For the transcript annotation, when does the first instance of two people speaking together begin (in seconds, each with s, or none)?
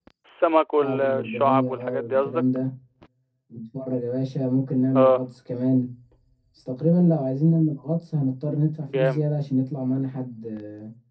0.8 s